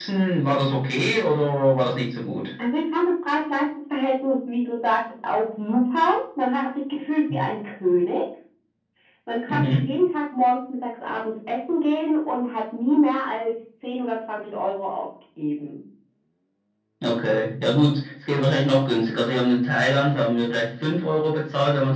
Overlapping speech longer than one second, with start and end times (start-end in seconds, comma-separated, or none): none